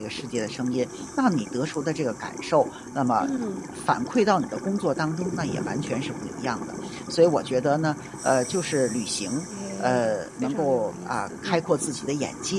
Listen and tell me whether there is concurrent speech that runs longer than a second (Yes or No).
Yes